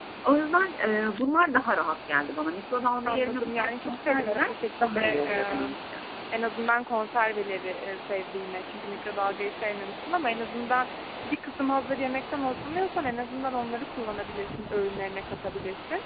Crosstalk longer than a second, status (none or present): present